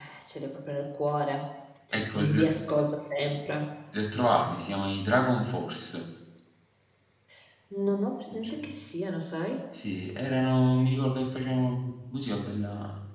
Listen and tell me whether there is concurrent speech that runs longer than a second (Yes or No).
No